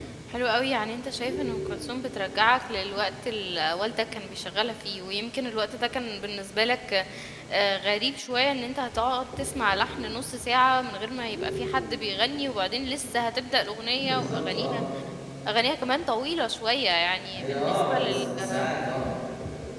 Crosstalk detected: Yes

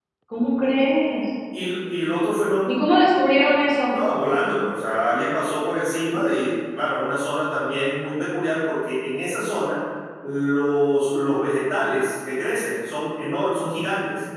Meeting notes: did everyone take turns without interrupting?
Yes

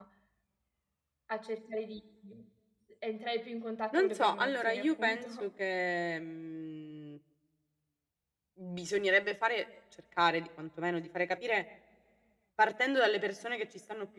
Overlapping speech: Yes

